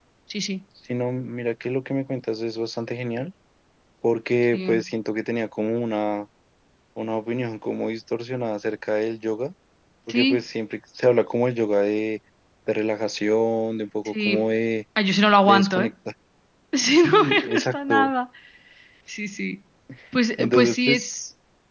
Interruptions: present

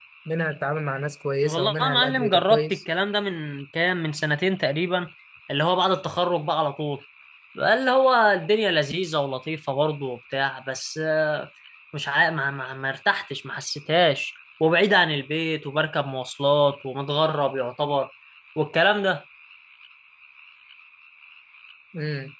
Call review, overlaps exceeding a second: present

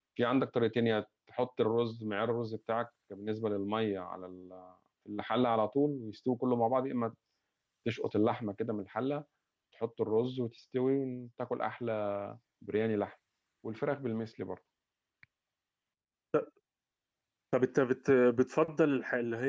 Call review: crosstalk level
none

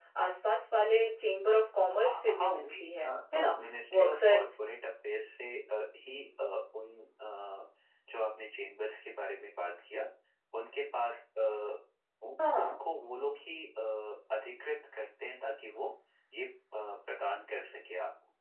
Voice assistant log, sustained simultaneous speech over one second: present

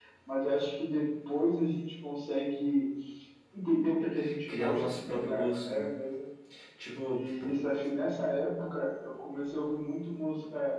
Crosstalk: present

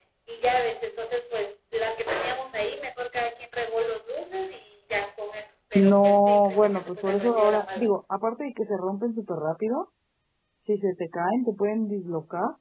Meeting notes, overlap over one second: present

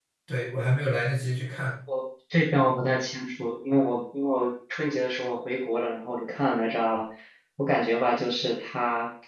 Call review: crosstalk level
none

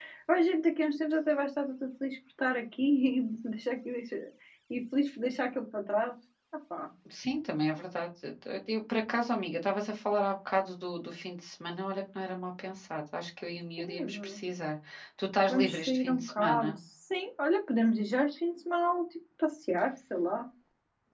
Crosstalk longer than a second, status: present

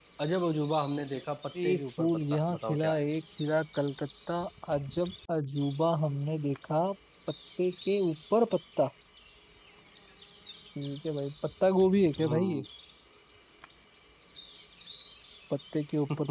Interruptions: present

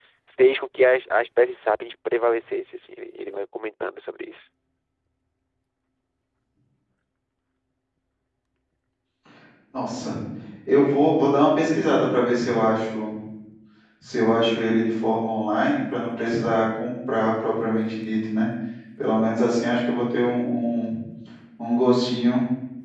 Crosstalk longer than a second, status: none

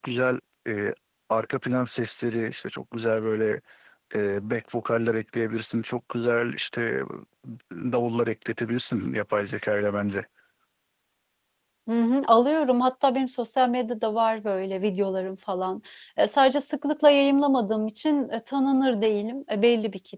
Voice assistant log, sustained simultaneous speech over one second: none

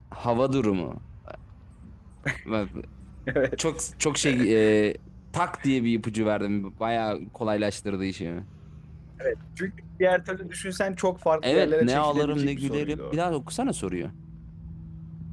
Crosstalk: present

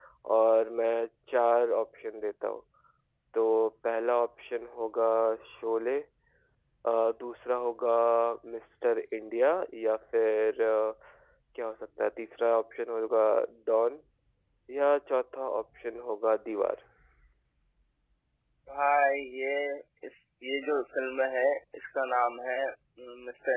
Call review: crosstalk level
none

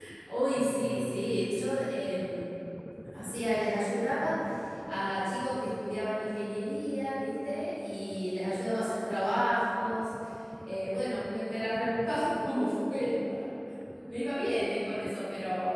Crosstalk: present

